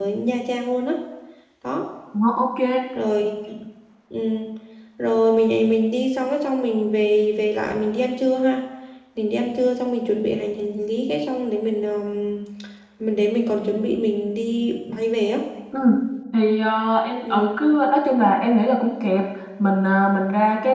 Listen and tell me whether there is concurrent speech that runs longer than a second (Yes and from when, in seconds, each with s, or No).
No